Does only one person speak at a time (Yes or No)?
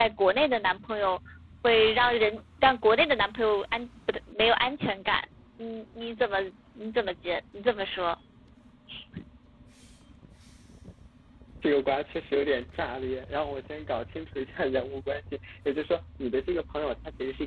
Yes